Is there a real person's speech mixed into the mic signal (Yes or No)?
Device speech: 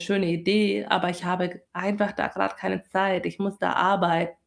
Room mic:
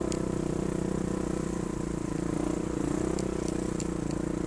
No